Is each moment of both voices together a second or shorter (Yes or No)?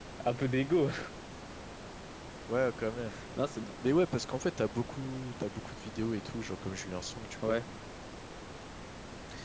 Yes